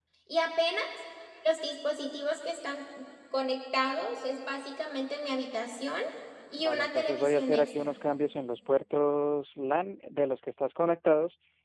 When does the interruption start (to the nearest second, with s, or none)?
7 s